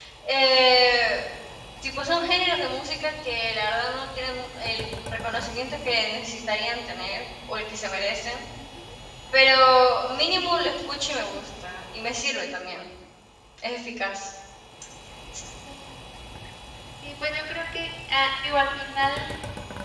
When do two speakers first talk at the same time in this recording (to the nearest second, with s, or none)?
none